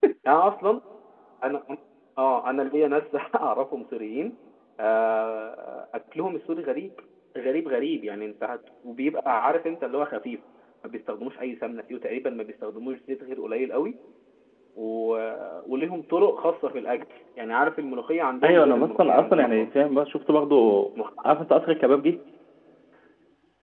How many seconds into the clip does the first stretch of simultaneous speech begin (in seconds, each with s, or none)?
18.4 s